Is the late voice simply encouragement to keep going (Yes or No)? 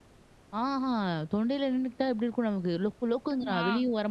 Yes